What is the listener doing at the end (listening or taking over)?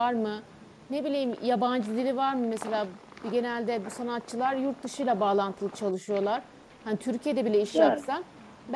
listening